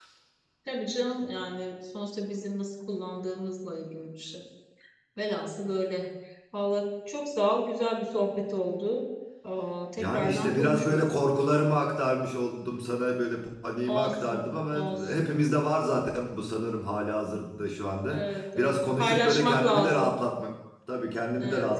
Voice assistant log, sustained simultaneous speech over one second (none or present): present